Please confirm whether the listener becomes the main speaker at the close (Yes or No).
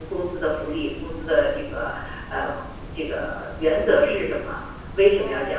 No